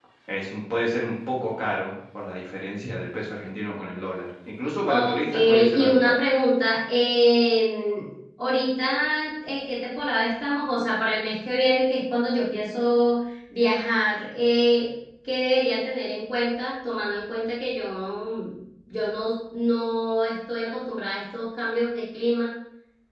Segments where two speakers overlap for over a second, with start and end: 4.9-6.2

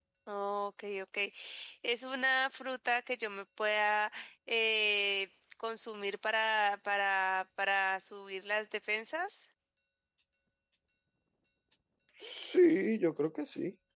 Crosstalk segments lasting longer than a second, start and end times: none

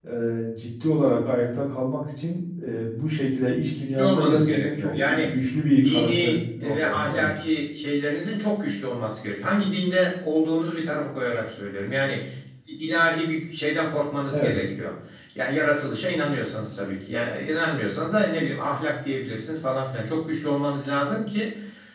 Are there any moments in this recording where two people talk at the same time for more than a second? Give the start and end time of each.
3.8-5.3, 5.8-7.3

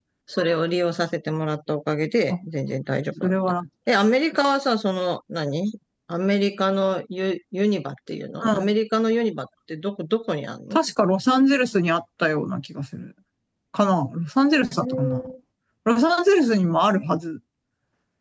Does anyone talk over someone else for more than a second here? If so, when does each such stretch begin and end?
none

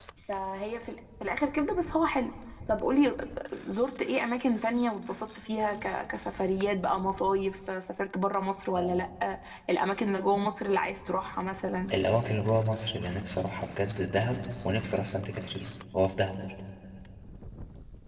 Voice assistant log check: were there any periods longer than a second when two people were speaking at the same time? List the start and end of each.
none

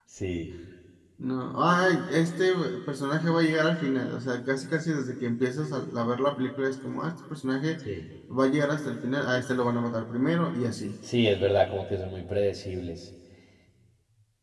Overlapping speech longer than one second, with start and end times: none

